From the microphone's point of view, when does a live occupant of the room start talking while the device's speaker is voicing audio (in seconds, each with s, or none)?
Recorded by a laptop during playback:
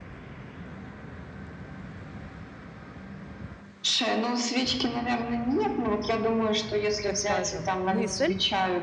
7.0 s